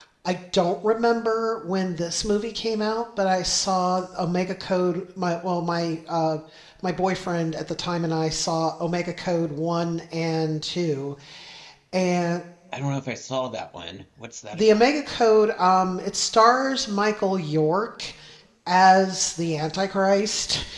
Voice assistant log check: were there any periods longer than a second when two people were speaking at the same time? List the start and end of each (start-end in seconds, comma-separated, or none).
none